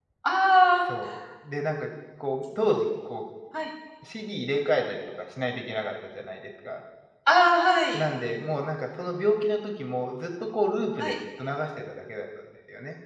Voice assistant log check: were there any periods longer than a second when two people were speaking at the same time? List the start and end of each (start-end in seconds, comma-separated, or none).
none